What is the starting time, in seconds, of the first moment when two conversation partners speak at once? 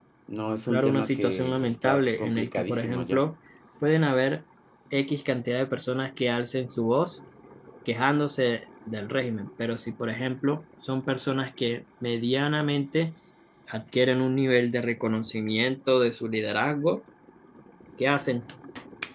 0.7 s

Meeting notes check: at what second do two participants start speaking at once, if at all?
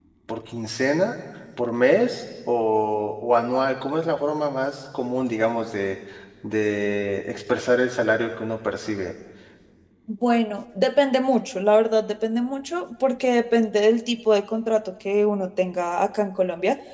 none

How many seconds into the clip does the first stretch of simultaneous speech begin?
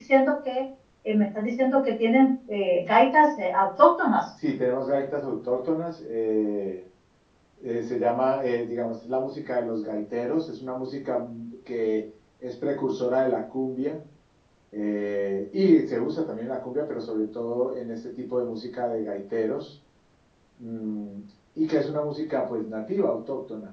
none

